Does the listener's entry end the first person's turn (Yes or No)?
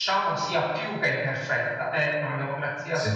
No